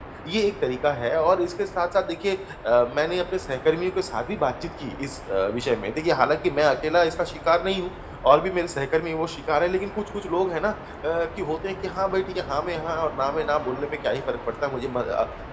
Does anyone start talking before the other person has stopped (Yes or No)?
No